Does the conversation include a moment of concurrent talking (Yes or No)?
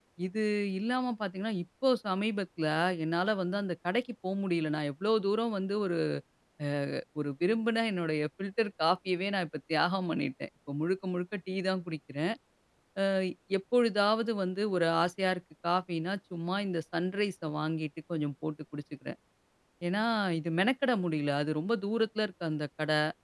No